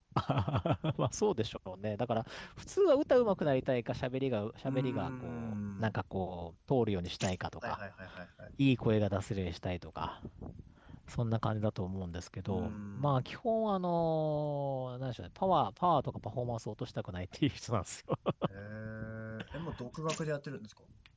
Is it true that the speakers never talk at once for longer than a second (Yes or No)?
No